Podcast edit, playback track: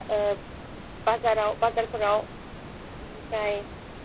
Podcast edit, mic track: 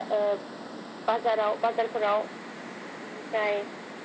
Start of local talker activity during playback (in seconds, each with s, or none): none